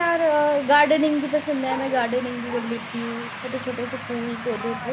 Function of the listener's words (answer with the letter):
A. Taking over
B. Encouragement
A